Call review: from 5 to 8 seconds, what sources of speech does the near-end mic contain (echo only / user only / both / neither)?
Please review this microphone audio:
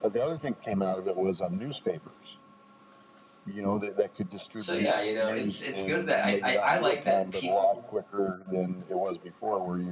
both